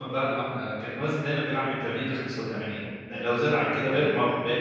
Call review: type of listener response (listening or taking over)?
listening